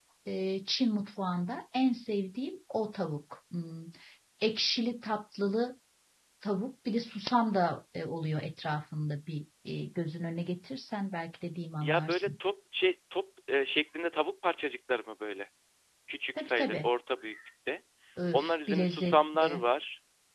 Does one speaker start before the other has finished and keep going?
Yes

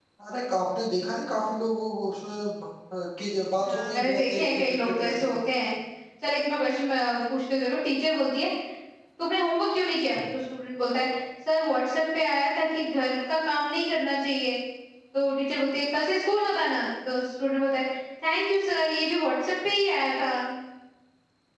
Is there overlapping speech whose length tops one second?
Yes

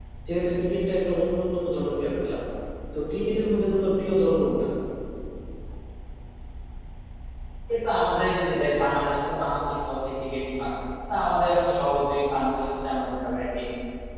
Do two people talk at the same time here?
No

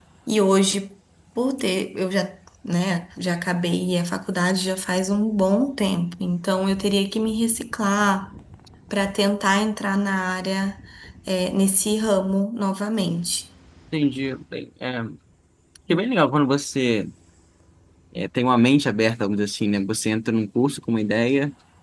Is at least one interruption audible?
No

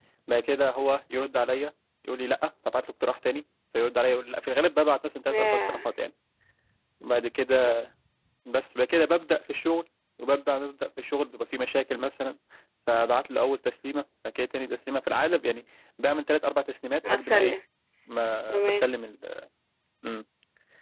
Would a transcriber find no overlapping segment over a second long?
Yes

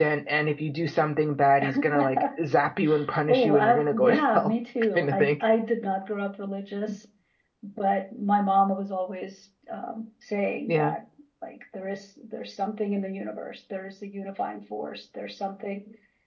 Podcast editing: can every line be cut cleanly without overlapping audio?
No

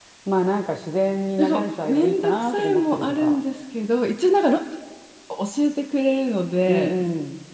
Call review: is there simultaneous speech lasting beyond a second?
Yes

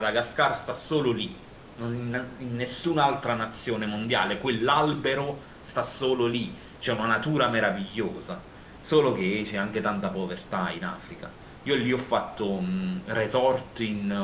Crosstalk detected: No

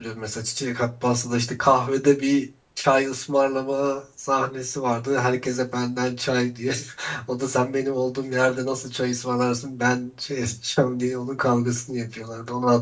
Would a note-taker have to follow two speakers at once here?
No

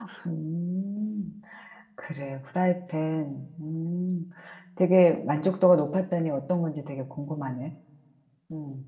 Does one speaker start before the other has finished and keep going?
No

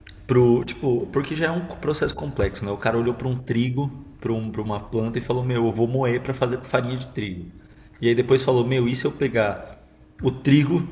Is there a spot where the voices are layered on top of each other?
No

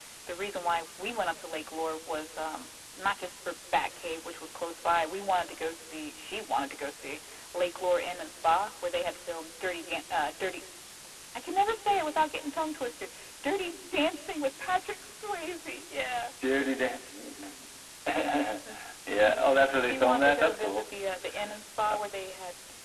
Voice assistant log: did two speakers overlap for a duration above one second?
Yes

